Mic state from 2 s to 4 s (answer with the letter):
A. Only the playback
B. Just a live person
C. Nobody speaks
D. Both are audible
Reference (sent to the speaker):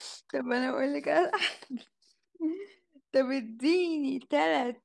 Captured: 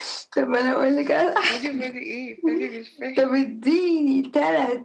D